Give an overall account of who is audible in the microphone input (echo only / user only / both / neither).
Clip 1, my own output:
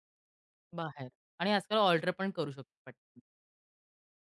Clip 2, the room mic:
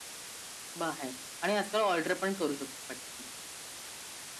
echo only